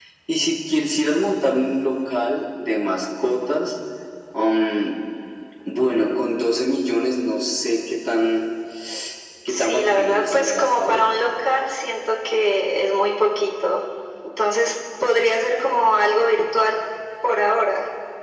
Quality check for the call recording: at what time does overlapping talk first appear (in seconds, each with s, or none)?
9.5 s